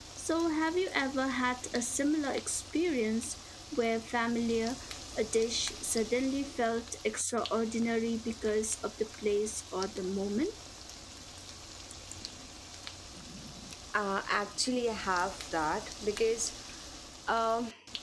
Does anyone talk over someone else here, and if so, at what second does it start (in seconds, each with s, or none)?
none